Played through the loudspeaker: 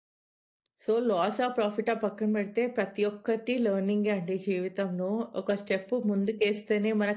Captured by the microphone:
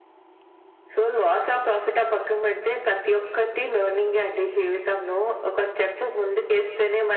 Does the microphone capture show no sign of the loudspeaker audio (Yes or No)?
No